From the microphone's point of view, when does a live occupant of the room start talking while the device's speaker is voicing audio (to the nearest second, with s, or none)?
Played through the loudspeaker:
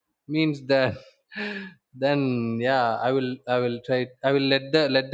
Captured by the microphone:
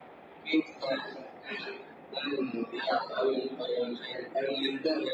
none